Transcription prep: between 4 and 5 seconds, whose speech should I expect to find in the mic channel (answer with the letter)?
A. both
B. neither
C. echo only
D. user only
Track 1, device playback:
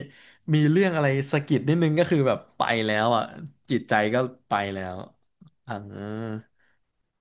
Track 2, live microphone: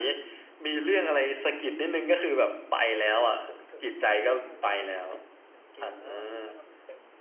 A